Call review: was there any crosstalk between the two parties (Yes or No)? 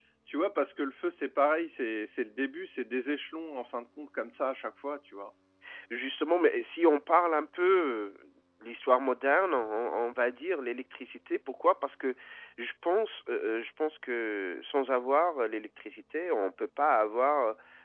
No